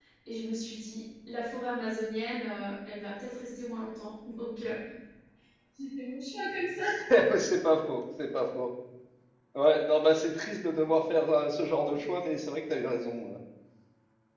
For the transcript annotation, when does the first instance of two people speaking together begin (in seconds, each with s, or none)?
none